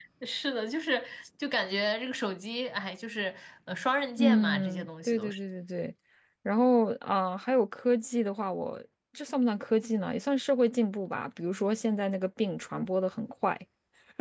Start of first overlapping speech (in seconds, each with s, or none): 4.2 s